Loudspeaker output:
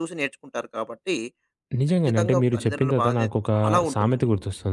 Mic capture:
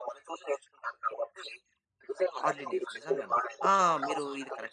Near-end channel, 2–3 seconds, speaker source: both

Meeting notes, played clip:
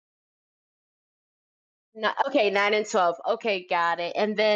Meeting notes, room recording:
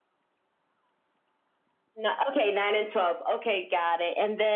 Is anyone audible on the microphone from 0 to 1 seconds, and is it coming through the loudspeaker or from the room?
neither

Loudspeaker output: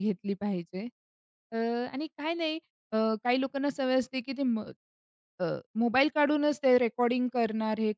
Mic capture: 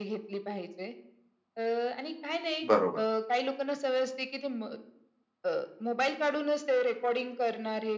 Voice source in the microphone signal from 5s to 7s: echo only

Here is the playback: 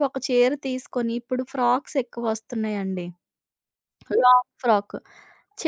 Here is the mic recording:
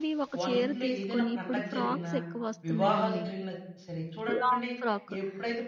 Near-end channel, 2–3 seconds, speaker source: both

